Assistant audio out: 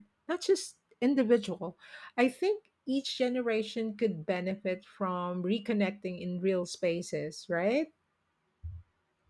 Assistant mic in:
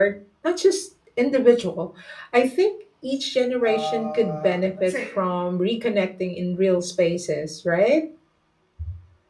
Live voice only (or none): uh, let's say